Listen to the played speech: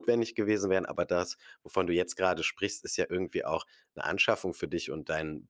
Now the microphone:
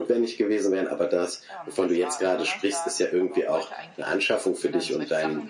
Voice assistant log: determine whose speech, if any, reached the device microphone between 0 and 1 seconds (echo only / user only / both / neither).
echo only